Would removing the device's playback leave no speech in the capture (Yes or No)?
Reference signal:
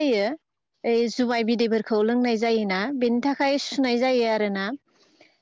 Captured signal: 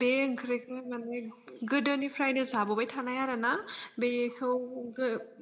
No